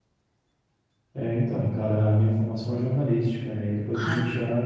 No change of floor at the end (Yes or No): Yes